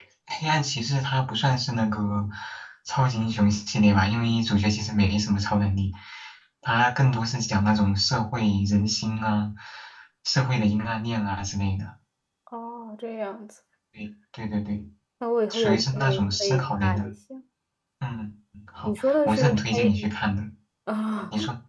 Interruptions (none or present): present